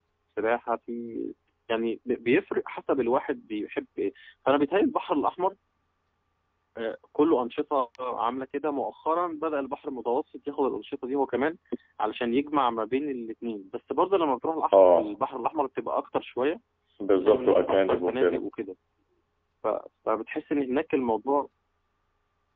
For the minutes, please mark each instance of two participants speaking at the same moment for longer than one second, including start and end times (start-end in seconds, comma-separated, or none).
17.1-18.4